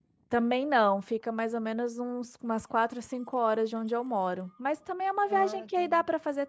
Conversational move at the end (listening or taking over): listening